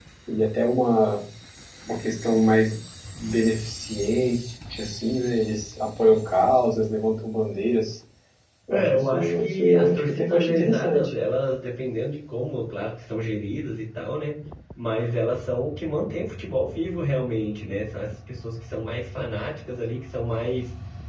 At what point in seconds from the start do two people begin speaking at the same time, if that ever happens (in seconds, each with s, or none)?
8.7 s